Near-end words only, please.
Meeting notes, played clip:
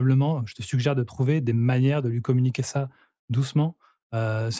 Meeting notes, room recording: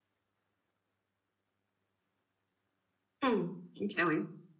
Mmh. OK, oui.

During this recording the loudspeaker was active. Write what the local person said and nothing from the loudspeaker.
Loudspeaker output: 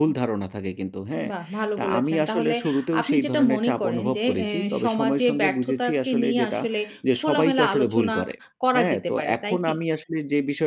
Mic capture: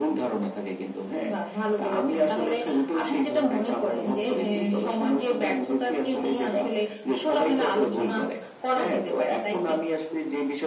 none

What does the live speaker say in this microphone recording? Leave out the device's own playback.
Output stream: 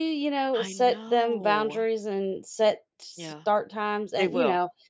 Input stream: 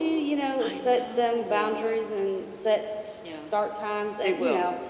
none

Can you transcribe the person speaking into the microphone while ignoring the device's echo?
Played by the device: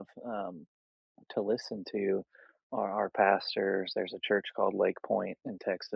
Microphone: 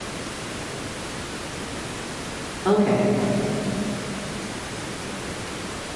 Okay.

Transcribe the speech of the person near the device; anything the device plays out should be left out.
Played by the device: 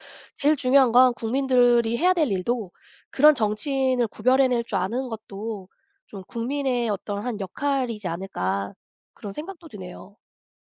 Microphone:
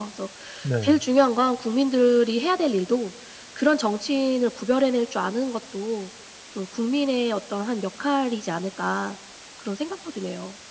네.

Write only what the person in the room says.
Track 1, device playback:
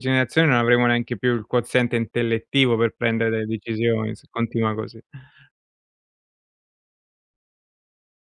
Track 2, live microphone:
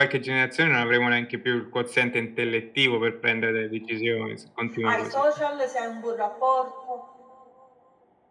hai social, se hai un buon rapporto.

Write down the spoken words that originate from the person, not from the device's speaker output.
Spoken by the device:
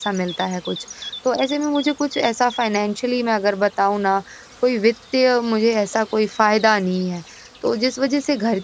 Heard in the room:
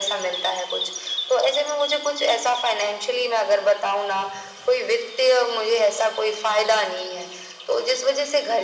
none

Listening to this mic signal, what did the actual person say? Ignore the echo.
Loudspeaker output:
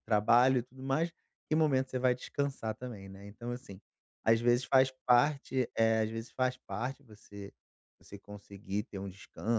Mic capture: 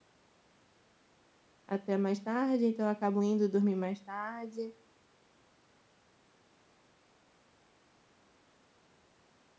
até mais tarde", então eu acabo indo dormir mais tarde.

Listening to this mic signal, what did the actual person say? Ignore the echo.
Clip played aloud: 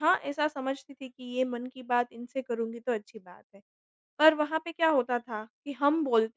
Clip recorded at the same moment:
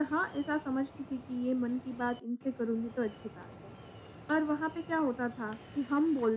none

